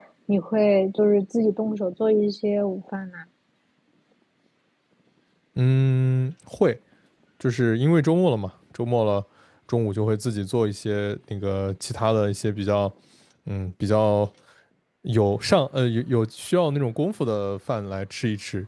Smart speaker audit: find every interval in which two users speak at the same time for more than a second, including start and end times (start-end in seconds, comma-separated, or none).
none